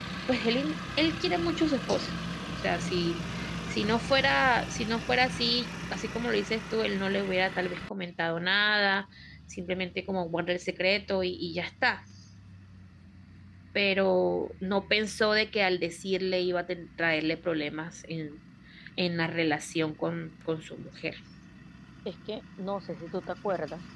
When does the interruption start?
none

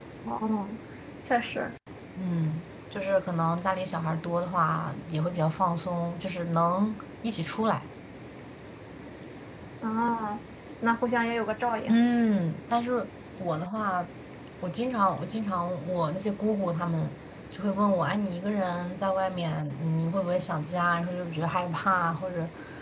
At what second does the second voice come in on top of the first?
none

